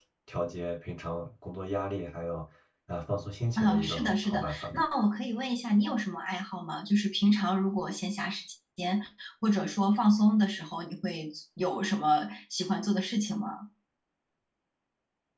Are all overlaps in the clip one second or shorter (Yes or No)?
No